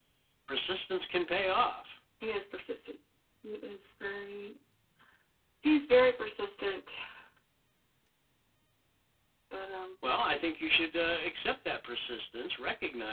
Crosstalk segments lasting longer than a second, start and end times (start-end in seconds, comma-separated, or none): none